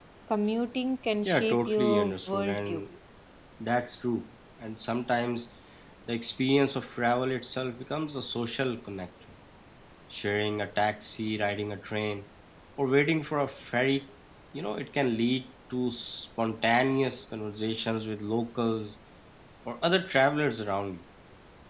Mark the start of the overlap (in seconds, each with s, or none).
1.2 s